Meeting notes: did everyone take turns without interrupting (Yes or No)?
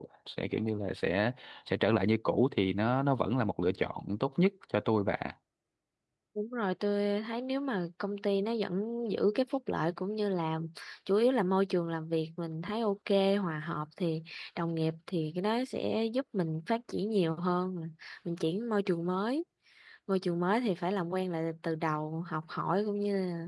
Yes